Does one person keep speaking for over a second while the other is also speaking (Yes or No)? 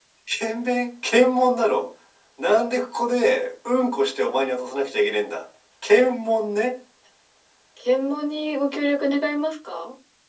No